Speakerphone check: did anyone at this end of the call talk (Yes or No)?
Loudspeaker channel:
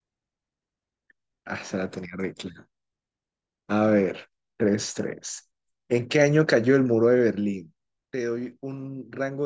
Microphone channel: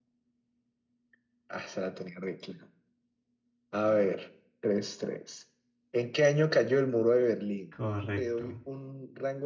Yes